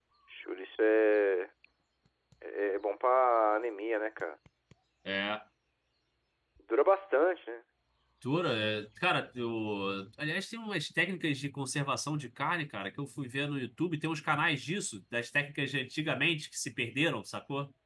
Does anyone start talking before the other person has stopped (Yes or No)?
No